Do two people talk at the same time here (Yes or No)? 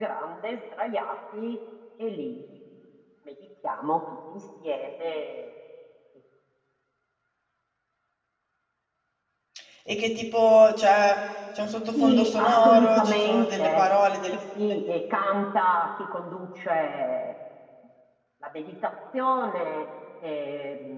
Yes